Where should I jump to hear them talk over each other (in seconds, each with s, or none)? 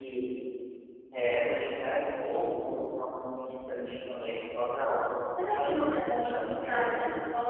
5.4 s